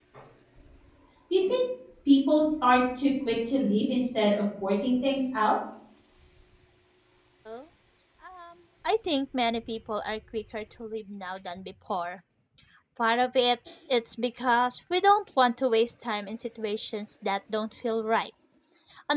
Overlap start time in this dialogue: none

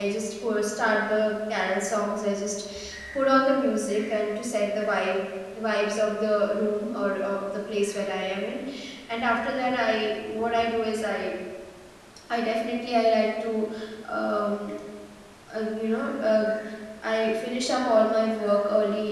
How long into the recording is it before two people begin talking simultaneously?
none

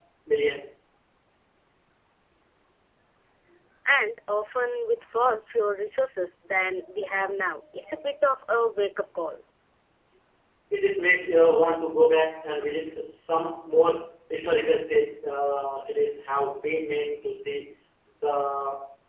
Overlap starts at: none

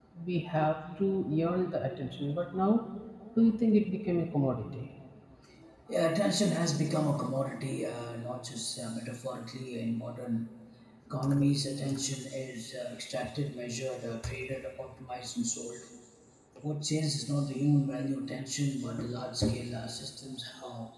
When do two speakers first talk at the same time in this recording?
none

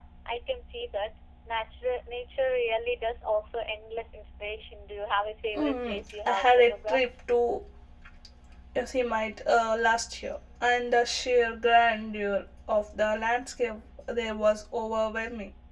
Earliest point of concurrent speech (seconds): 6 s

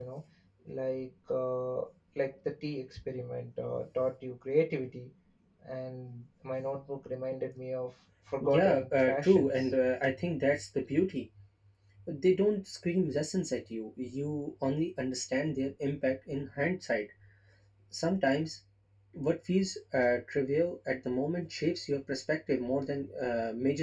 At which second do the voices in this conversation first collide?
8 s

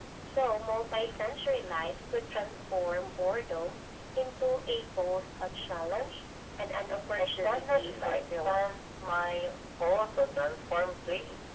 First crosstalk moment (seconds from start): 7 s

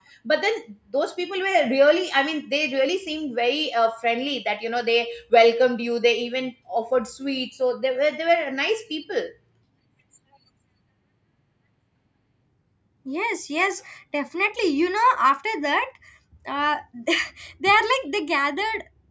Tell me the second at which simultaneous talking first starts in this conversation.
none

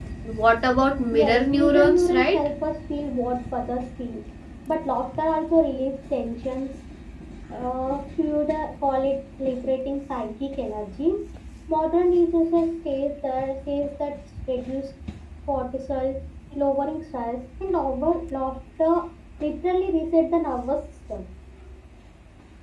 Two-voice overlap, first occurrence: 1 s

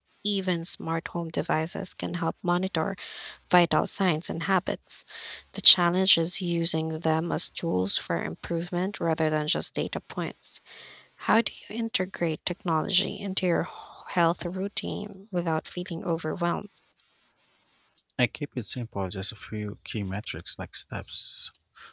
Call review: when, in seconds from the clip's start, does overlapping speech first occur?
none

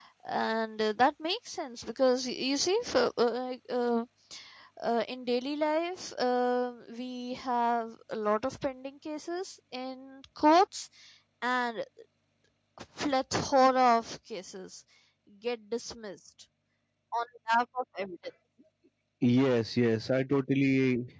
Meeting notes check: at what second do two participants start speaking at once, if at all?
none

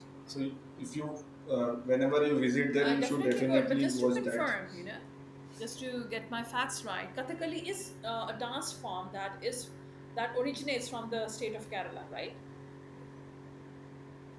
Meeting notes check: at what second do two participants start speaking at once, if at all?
3 s

